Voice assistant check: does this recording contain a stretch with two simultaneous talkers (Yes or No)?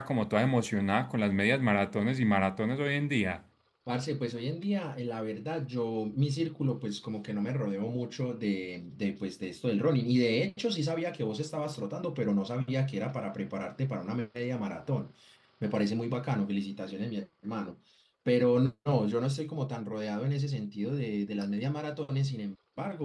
No